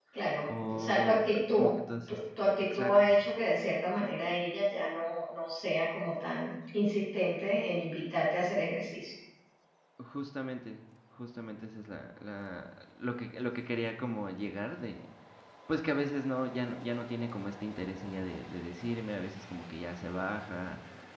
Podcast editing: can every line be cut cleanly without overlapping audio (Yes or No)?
No